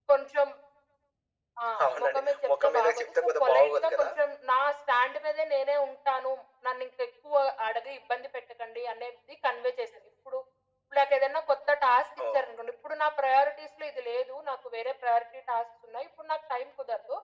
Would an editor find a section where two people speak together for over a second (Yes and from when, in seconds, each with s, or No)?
Yes, from 2.0 s